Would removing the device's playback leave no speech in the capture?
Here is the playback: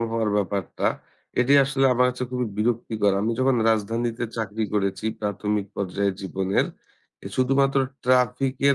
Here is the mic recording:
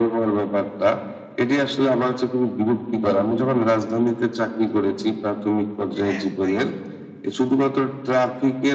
No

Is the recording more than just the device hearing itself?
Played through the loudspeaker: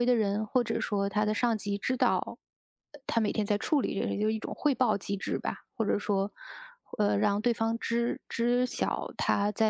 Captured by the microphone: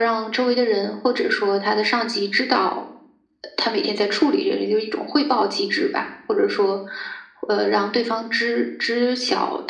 No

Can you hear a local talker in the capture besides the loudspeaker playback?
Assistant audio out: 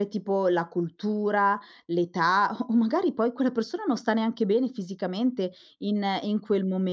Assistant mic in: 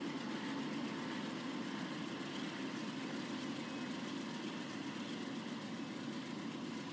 No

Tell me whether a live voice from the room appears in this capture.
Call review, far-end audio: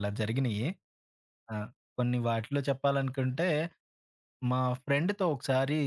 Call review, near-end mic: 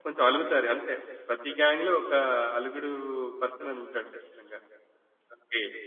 Yes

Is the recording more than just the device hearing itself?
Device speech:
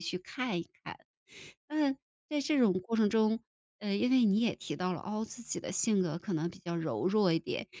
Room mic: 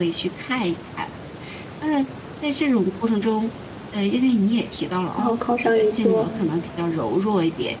Yes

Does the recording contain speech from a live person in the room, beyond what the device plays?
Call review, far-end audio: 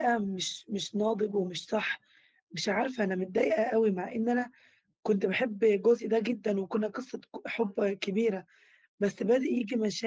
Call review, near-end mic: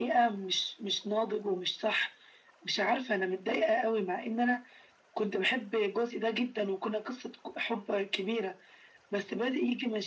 No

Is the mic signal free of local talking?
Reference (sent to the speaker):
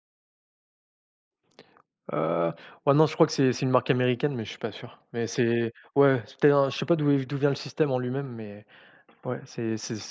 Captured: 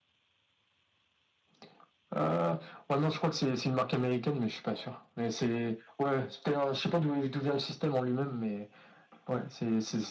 Yes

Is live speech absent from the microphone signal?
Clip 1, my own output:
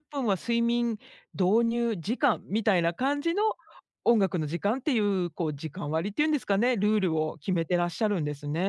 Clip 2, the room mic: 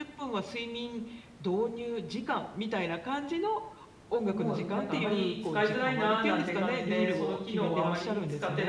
No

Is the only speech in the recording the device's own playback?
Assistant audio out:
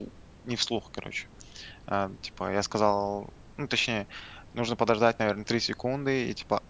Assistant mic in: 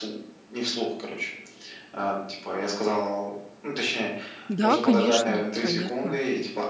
No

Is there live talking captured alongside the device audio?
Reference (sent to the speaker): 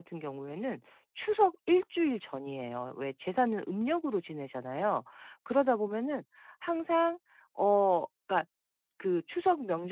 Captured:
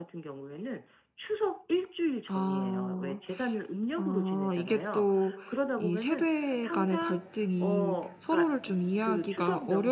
Yes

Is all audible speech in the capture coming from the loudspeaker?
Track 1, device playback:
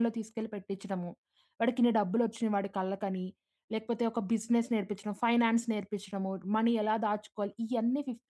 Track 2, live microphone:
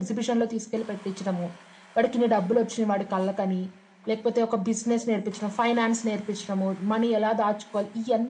Yes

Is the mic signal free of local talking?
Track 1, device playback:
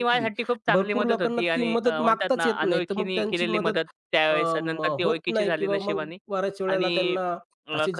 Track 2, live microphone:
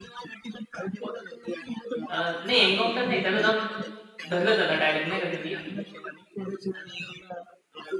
No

